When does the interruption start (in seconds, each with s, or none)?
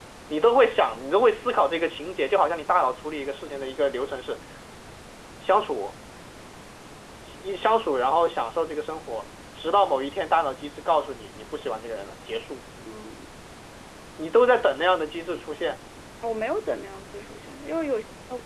none